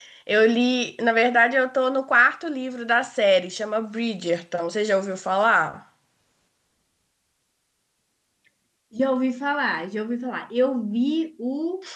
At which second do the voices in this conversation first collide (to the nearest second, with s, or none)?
none